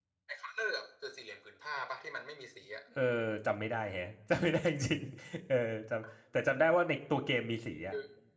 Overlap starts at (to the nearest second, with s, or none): none